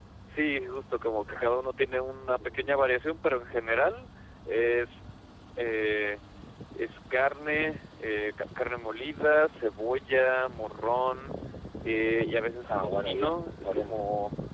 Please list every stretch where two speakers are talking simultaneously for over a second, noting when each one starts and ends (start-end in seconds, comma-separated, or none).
12.6-14.0